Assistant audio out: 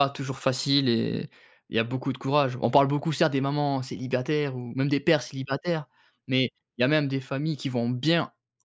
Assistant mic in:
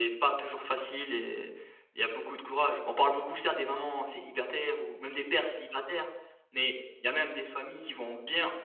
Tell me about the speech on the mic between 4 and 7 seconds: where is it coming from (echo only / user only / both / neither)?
echo only